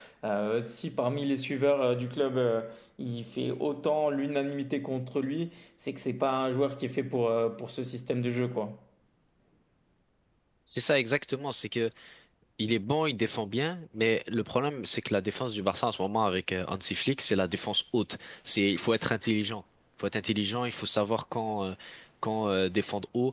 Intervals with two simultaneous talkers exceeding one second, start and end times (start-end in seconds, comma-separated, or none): none